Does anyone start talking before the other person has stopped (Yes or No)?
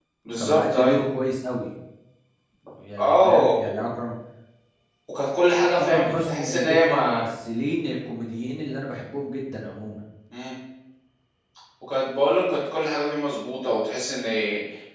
Yes